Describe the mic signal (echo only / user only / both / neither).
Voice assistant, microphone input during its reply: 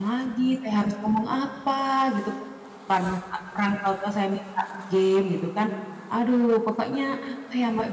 user only